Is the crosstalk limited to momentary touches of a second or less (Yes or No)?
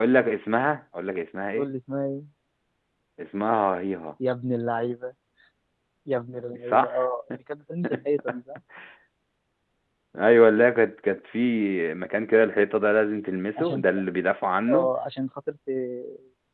Yes